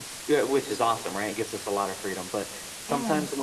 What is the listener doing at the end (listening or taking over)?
listening